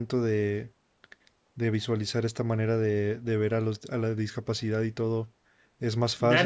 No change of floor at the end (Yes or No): No